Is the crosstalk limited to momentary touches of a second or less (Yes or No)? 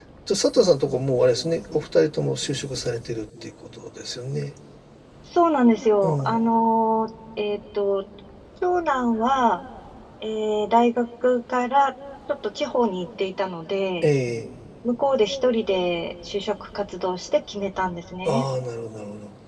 Yes